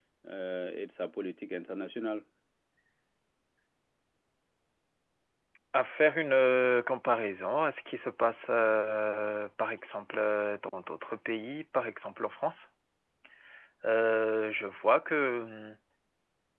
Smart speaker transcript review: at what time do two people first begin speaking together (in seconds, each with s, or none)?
none